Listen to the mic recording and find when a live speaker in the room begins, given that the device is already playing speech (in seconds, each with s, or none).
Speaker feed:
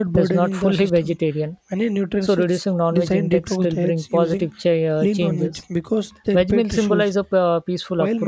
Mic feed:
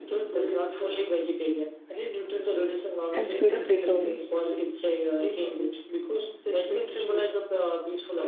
3.1 s